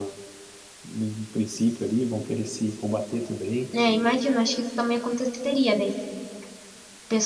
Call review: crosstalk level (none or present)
none